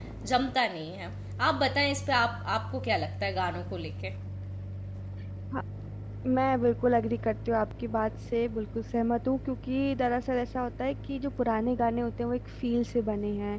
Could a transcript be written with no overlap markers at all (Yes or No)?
Yes